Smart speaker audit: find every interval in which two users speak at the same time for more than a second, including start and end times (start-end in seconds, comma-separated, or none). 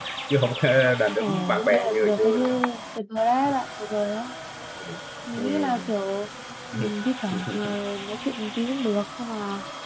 1.2-2.6